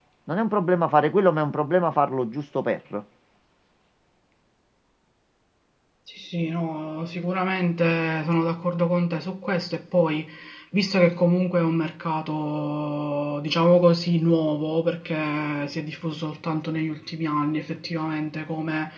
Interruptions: none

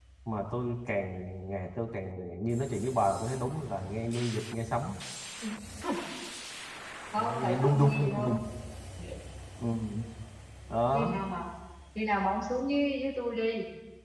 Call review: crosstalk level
present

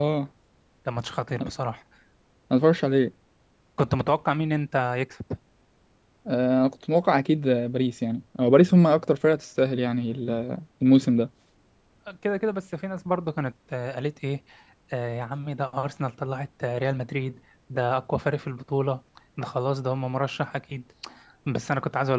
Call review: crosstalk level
none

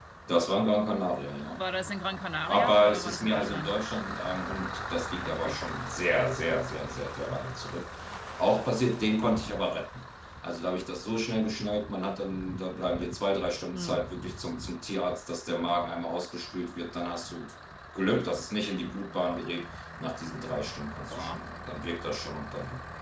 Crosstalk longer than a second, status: present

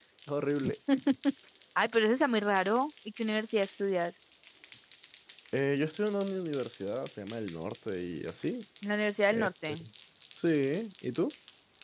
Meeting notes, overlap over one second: none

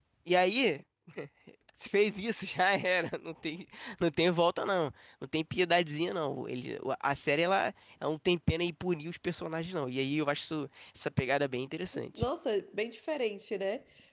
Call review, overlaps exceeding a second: none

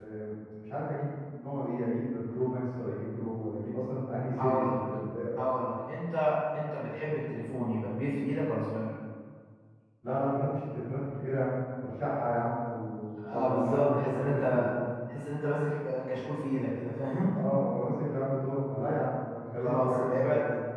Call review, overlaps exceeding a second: present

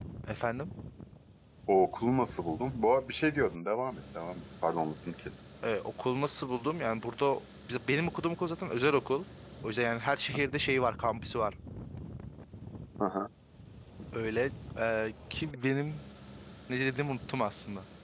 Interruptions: none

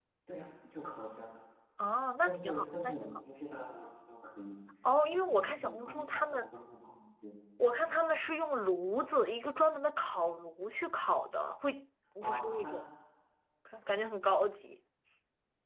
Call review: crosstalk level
present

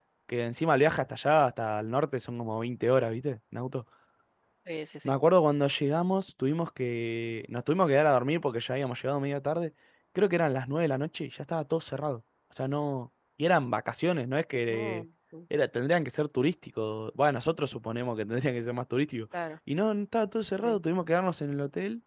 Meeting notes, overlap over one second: none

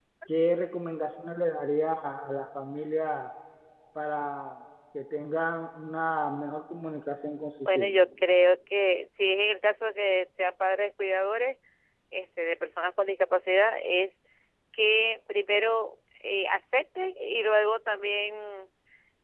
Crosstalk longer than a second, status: none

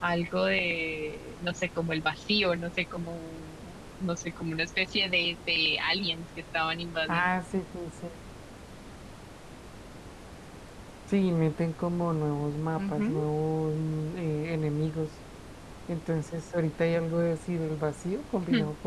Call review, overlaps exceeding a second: none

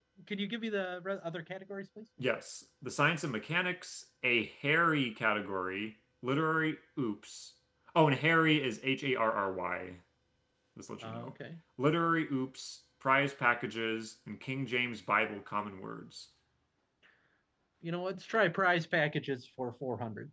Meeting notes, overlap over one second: none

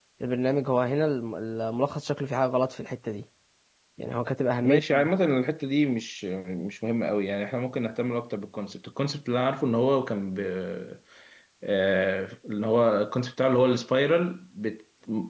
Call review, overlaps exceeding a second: none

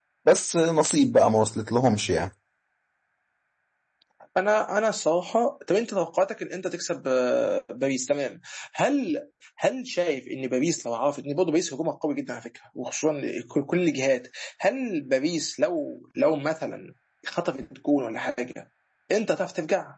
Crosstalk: none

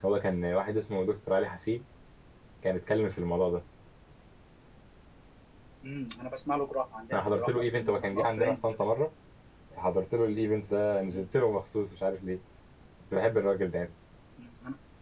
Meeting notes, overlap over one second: present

